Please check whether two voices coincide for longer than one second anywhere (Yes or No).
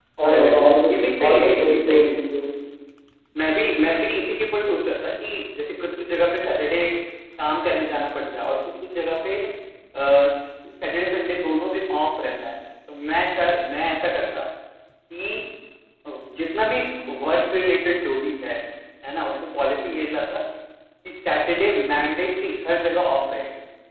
Yes